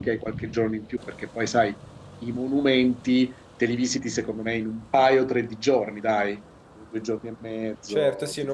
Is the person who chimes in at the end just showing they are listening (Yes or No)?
No